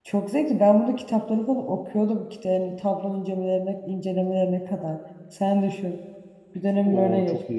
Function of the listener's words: taking over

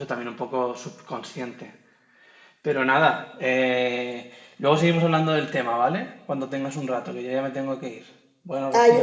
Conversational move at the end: taking over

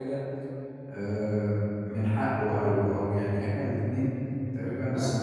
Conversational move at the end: listening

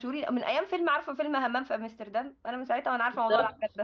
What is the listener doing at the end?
taking over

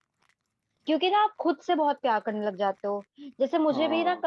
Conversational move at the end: listening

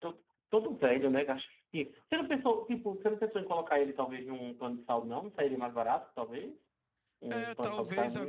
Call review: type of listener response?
taking over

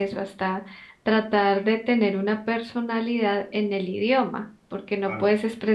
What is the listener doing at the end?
listening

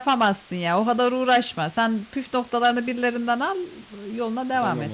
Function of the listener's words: taking over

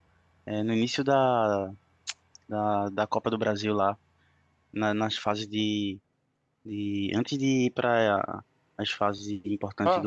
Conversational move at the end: taking over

